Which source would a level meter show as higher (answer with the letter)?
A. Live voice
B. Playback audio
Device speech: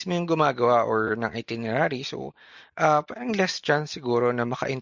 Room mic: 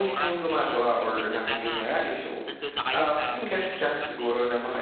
B